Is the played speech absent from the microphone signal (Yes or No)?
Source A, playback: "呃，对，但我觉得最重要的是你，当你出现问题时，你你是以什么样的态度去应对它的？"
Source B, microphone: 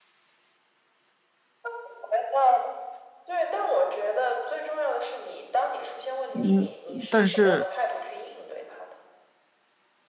No